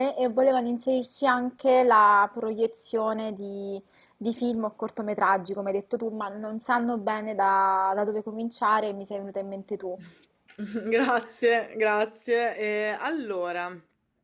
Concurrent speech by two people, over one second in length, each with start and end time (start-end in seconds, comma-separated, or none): none